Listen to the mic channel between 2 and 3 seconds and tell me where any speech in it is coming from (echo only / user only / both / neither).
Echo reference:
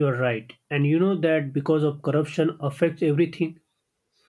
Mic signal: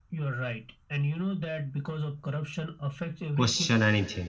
echo only